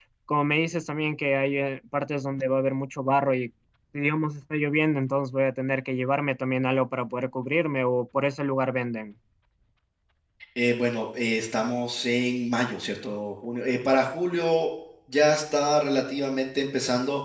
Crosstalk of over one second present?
No

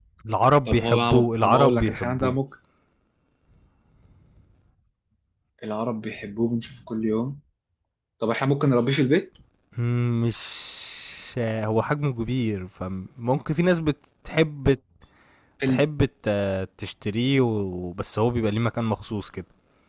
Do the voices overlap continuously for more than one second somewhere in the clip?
Yes, from 0.7 s

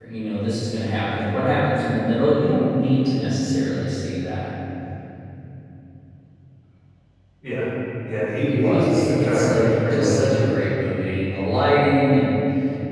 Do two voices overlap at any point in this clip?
Yes, from 8.5 s

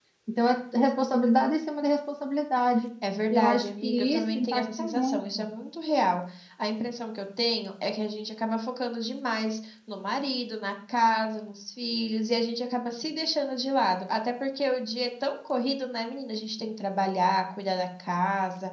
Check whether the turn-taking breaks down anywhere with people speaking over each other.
Yes, from 3.3 s

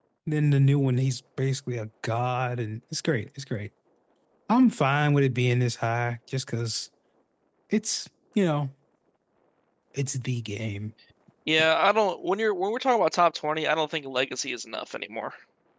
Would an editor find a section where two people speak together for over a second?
No

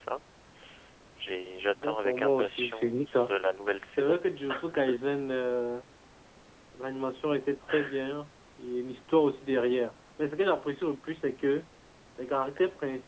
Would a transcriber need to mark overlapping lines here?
Yes, from 1.8 s

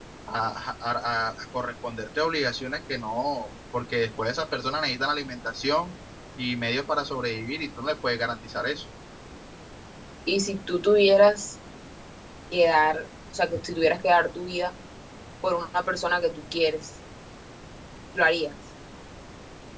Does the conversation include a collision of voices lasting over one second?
No

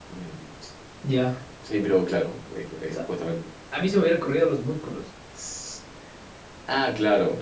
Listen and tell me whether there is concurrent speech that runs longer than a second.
No

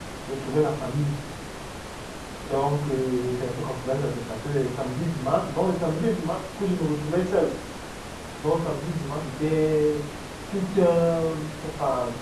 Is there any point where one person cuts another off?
No

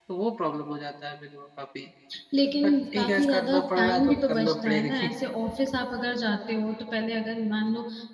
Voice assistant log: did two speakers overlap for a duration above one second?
Yes, from 2.6 s

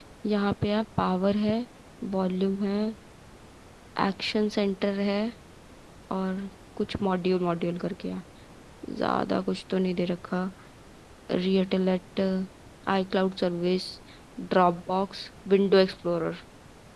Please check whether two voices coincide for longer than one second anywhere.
No

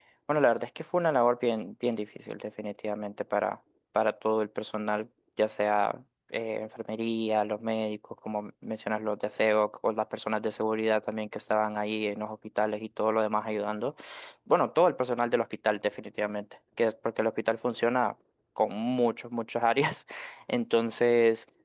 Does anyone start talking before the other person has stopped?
No

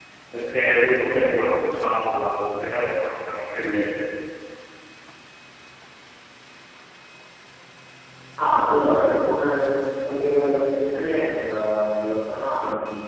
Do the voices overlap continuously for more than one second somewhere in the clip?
No

